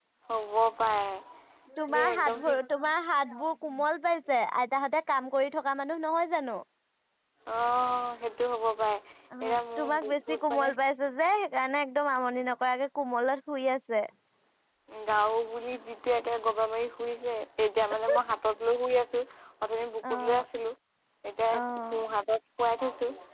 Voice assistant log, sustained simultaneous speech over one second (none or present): present